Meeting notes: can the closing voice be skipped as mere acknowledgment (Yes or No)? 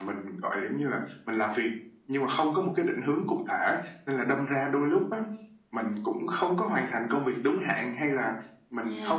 Yes